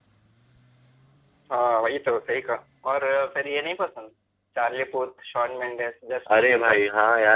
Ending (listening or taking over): taking over